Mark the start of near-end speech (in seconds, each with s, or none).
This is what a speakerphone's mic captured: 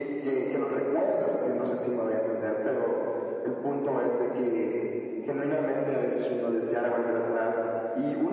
none